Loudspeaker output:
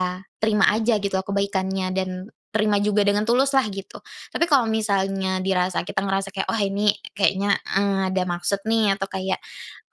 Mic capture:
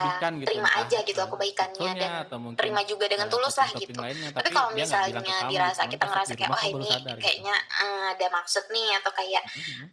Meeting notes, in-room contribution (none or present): present